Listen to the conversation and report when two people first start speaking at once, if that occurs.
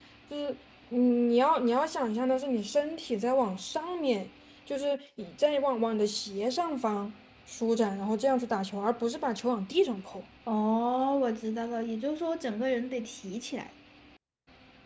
none

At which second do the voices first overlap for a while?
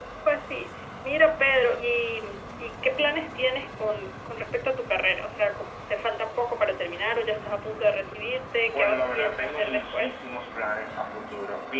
8.7 s

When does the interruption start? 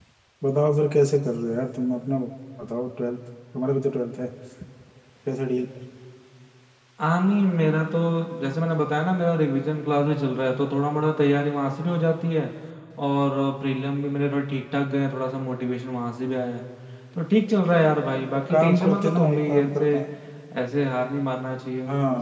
18.5 s

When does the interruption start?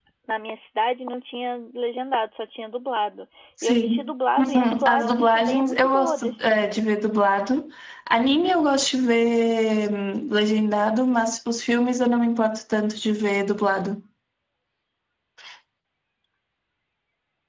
3.6 s

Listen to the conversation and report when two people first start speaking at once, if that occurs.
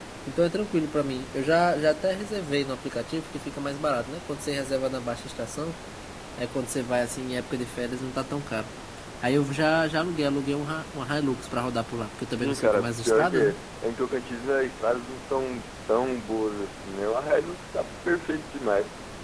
12.3 s

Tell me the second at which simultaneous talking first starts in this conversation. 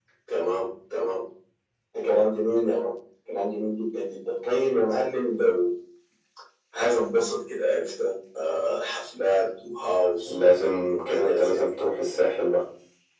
10.2 s

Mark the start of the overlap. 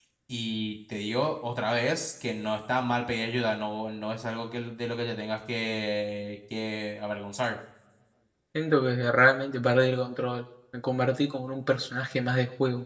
none

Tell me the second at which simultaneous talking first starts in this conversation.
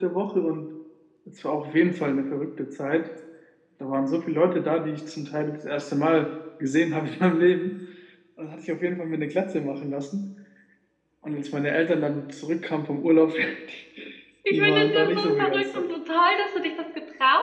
14.5 s

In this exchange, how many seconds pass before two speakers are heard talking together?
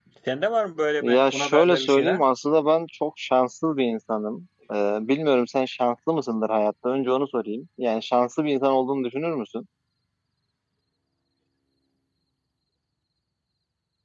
1.0 s

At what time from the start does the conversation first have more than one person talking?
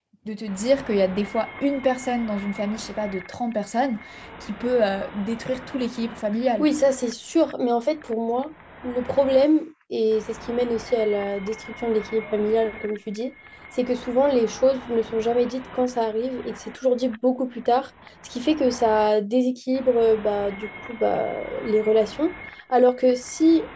none

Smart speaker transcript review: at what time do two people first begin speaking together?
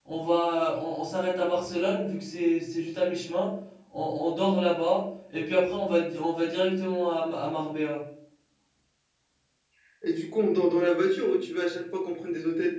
none

